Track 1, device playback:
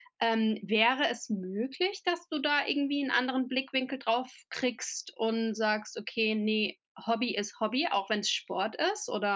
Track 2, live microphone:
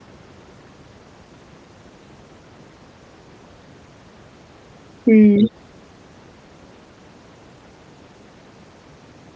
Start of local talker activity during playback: 5.1 s

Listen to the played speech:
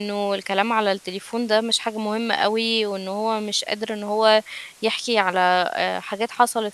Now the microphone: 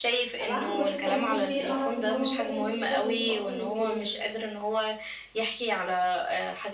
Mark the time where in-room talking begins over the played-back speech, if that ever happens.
0.4 s

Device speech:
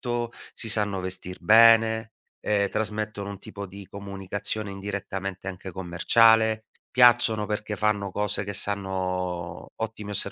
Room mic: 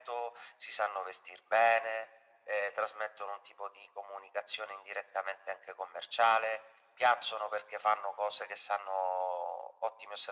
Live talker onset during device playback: none

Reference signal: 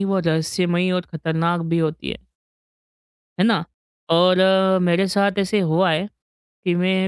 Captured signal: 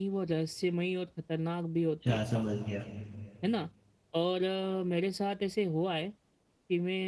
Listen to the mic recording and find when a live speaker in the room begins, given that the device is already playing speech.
1.8 s

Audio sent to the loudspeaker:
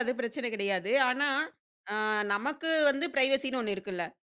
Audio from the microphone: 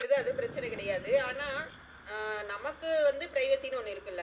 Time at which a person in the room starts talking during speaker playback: none

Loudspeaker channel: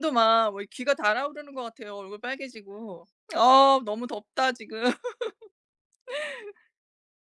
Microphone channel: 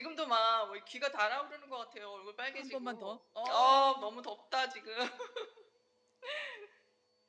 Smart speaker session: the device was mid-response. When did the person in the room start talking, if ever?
2.5 s

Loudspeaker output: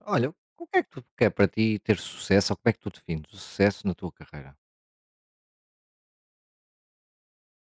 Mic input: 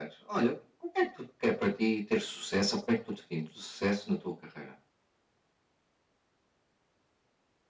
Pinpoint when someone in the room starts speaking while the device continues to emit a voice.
none

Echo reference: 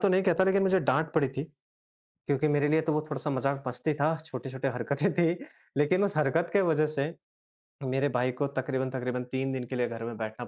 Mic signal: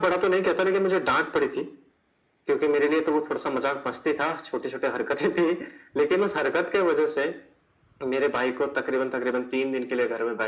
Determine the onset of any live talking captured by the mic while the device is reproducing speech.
none

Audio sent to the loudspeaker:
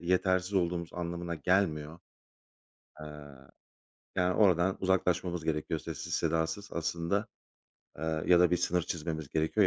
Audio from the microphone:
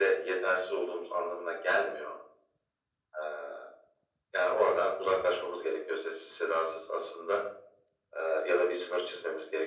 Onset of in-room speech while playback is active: none

